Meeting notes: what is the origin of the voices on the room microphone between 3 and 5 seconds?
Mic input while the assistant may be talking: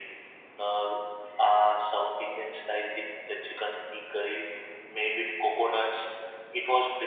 echo only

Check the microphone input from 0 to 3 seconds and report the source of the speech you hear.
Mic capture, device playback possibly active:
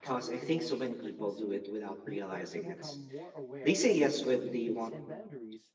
both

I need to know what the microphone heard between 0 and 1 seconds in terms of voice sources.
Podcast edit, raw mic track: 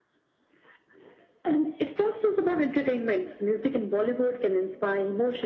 neither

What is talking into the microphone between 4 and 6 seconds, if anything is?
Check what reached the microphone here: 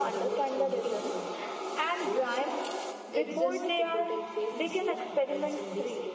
both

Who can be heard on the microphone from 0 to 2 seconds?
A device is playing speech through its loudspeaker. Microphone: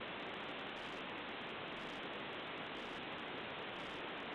neither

